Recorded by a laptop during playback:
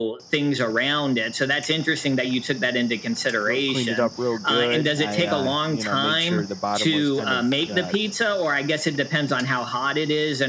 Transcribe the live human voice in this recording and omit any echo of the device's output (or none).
real, cleaned it up real good i uh you know made sure the bottom was kind of uh